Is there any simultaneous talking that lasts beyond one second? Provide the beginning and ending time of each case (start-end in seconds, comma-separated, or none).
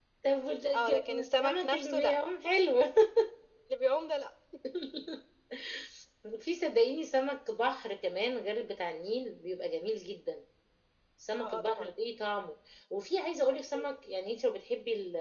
0.8-2.1